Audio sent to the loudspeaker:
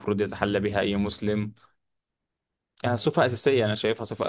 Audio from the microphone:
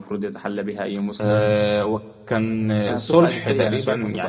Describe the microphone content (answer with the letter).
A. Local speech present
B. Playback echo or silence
A